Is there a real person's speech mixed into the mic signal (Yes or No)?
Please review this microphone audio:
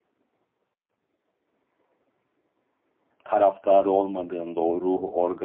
Yes